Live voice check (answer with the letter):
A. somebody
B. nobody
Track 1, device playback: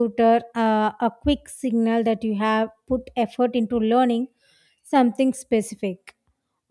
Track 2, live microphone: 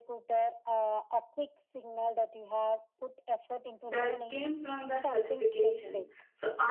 A